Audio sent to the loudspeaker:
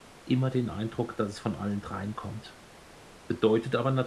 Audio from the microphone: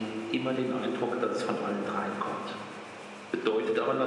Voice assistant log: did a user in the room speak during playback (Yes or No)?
No